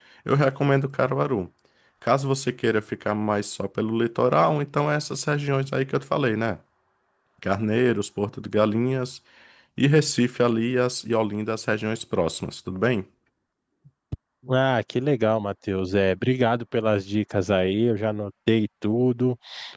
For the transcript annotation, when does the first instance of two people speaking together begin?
none

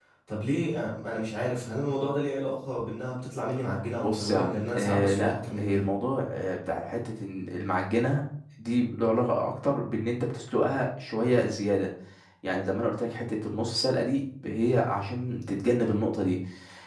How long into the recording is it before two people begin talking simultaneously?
4 s

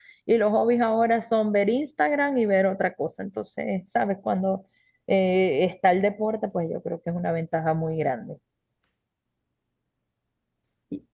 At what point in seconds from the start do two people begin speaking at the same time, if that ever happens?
none

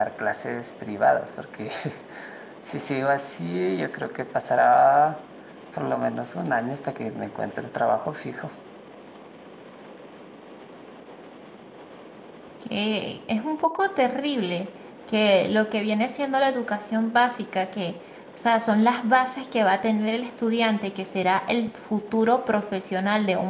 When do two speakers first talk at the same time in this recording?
none

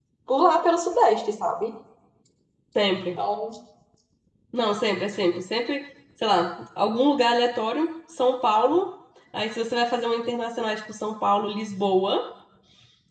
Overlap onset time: none

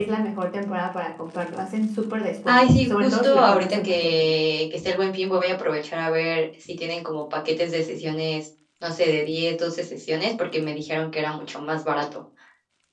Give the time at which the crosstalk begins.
2 s

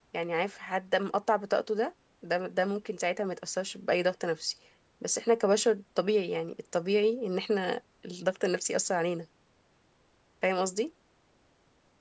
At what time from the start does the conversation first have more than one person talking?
none

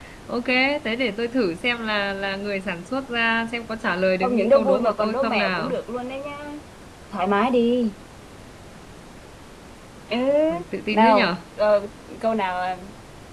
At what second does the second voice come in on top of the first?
4 s

